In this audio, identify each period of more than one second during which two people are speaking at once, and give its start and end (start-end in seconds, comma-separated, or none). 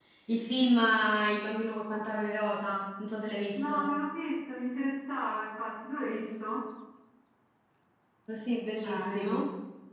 none